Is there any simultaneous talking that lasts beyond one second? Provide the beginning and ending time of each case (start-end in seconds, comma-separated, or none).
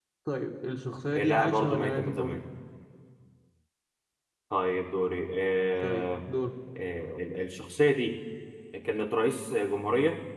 1.1-2.4